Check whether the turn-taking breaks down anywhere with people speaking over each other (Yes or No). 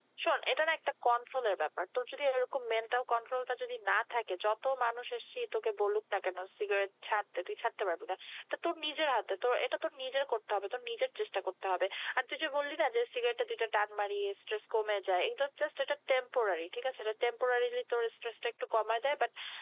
No